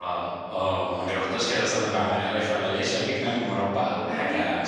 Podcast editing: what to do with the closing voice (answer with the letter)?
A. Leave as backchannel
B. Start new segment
B